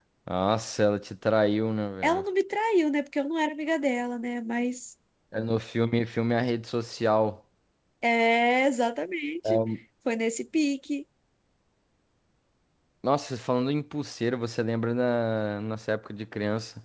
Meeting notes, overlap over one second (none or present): none